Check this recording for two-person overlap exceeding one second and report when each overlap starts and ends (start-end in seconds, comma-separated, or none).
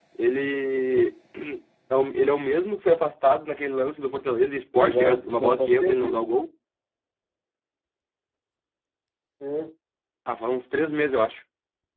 4.7-6.4